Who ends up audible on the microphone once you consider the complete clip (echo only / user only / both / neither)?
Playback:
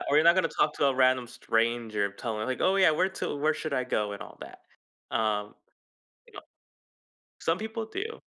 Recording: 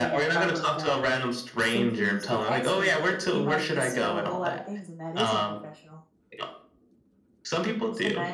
both